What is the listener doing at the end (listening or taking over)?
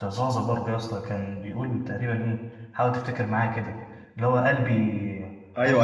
taking over